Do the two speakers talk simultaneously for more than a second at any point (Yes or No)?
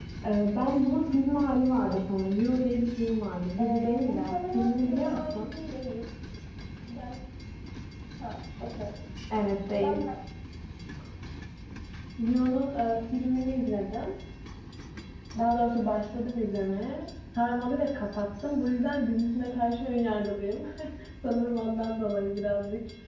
Yes